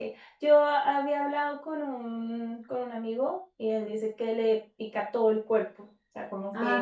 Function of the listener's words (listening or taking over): listening